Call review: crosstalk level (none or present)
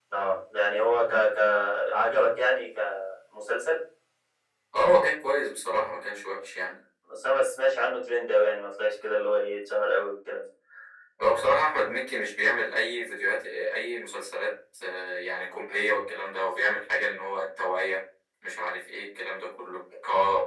none